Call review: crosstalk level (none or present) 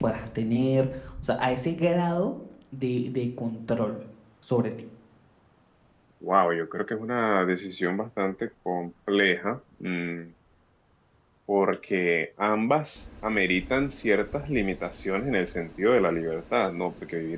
none